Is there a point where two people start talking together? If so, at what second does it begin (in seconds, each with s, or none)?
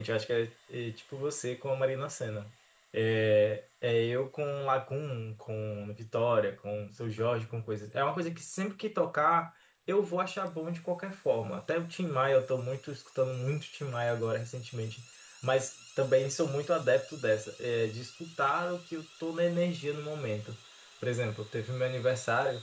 none